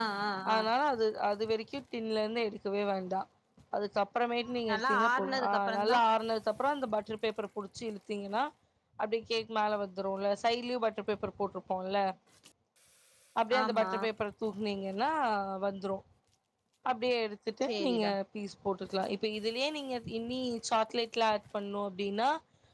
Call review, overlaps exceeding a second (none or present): present